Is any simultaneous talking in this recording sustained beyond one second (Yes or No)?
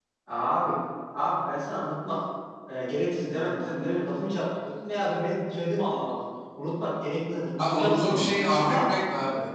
Yes